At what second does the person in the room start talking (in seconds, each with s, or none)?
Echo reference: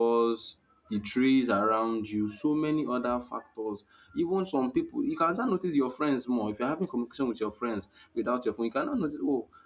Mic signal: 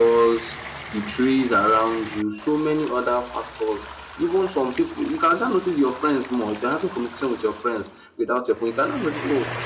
none